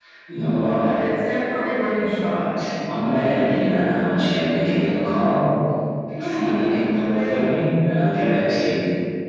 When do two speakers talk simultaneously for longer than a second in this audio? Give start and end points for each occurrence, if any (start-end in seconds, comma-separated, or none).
6.2-7.5